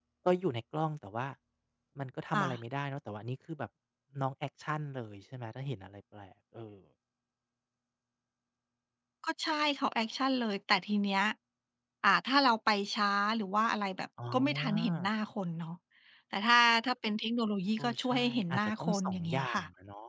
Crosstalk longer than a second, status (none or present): present